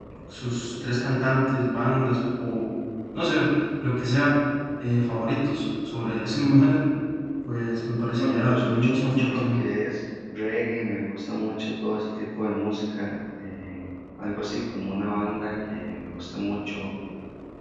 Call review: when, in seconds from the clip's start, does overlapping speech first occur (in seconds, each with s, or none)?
8.2 s